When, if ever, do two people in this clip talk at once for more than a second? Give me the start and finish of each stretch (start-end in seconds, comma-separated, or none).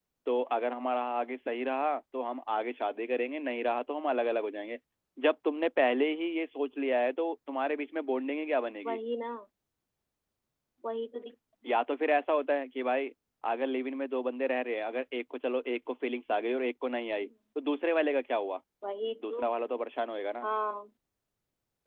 none